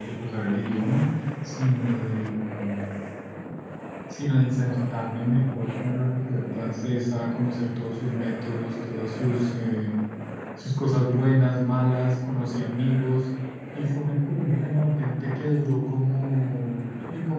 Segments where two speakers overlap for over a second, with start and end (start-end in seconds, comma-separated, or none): none